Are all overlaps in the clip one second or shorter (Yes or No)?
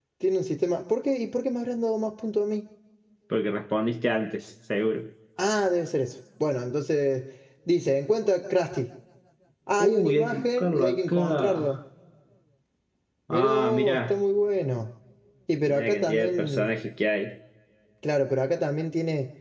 No